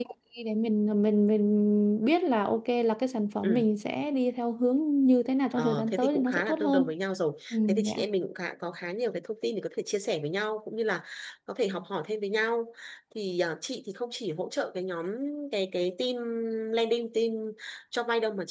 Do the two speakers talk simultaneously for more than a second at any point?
Yes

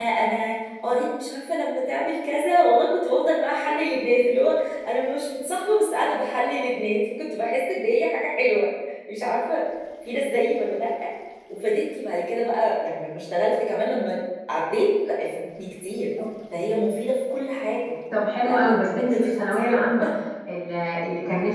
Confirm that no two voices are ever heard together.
No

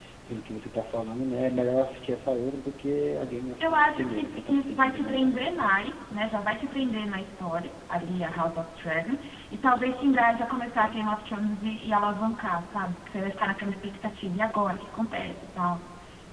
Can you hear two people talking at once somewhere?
Yes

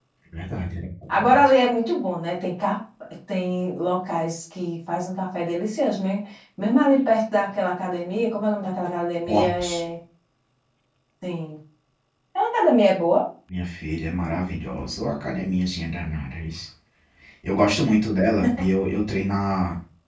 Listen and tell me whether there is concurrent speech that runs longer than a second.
No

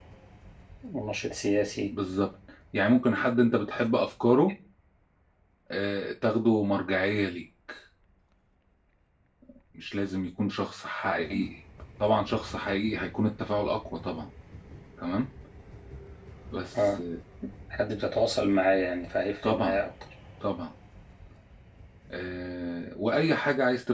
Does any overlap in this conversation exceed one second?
No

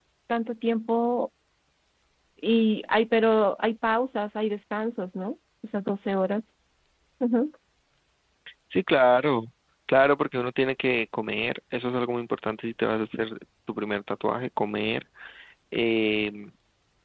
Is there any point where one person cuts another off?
No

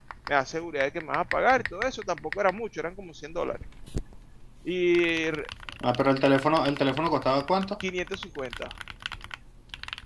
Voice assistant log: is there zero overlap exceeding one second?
Yes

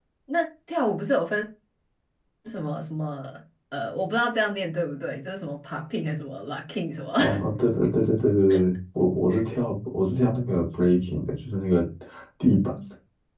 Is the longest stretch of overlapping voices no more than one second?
Yes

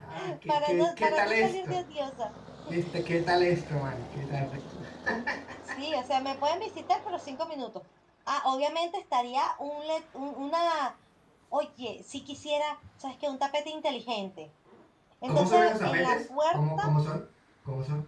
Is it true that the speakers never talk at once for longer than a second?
No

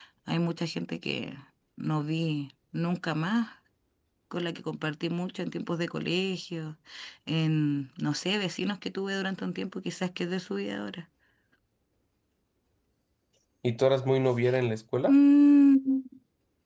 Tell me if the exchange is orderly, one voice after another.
Yes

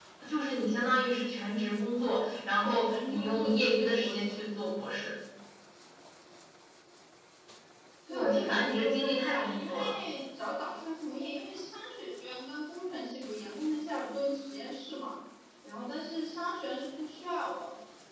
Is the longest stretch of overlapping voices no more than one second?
No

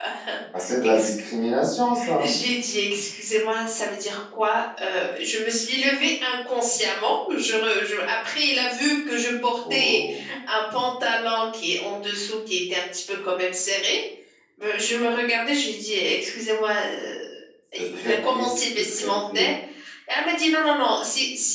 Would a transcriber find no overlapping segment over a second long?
No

